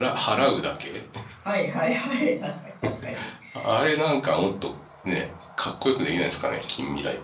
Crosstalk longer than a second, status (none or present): none